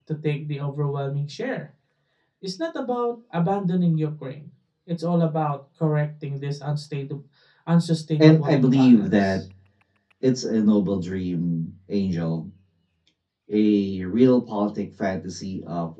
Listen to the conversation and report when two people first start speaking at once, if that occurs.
8 s

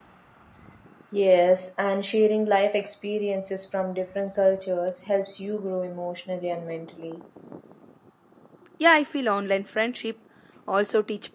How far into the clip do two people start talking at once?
none

